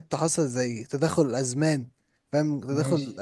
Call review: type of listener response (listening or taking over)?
listening